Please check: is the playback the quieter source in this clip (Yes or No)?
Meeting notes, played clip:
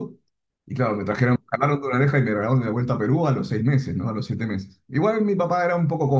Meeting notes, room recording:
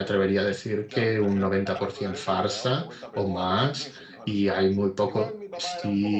Yes